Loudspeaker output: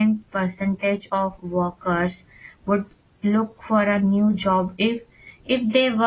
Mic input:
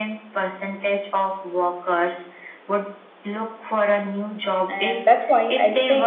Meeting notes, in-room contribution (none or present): present